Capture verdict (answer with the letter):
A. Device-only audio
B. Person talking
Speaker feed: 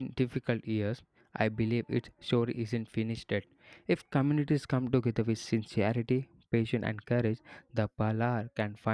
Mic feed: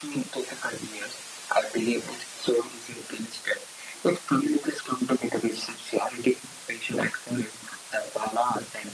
A